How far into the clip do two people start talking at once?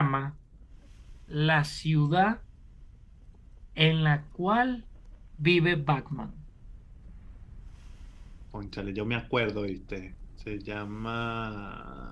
none

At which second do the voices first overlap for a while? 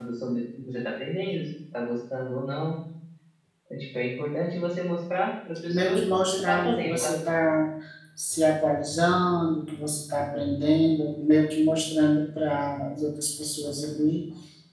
5.7 s

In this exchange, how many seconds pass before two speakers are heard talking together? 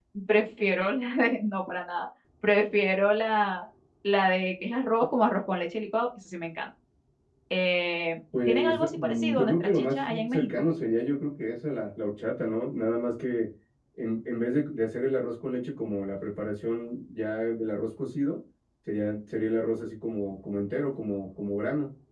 8.3 s

